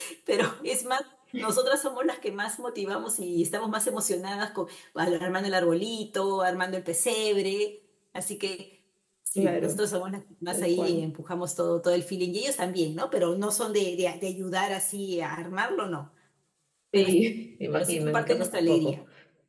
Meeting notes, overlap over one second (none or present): present